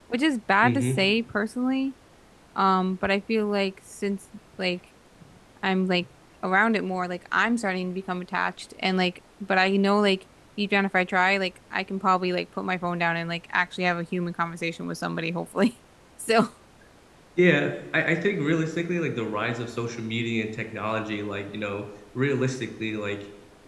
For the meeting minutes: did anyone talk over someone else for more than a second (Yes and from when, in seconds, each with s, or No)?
No